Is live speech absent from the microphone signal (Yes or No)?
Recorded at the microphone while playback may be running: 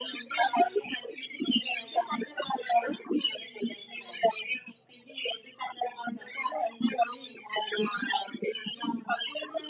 Yes